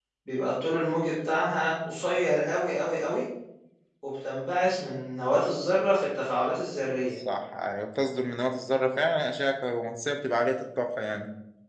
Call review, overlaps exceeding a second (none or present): none